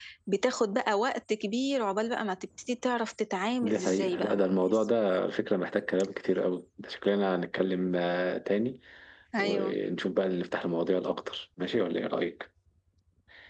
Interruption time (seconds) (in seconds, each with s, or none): 3.6 s